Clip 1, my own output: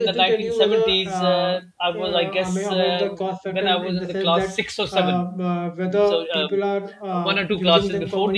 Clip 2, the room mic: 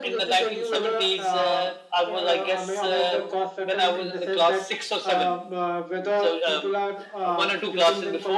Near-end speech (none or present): none